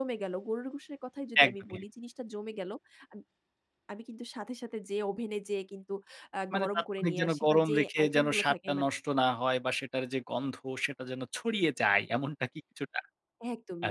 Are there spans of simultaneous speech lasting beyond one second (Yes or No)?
Yes